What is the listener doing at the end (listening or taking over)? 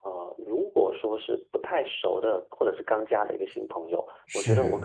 listening